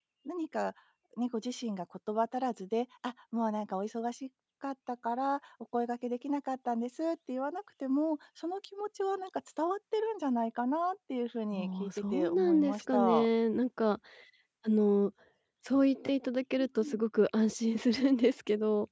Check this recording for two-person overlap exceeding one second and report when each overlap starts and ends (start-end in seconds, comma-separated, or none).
11.5-13.3